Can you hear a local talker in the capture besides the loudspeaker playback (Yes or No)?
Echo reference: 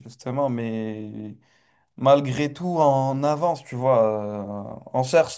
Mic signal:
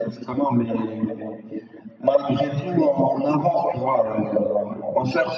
No